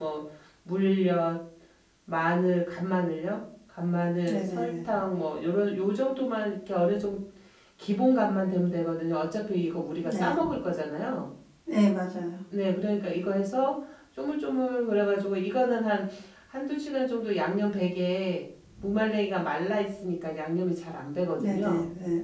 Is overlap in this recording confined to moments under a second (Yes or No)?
Yes